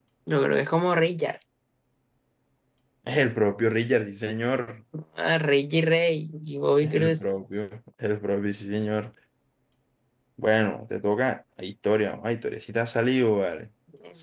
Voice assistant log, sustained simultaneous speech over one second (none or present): none